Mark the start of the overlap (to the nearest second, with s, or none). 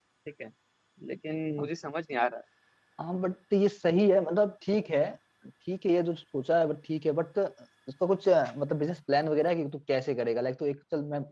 none